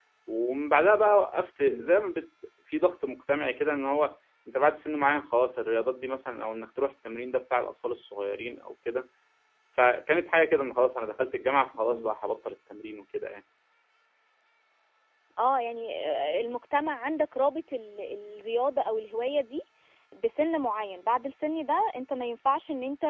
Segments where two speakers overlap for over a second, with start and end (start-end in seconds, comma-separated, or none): none